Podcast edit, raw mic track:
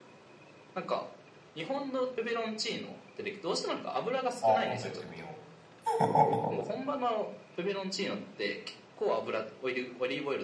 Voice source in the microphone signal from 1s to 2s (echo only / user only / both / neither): echo only